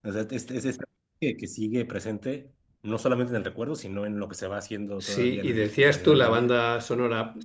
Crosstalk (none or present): present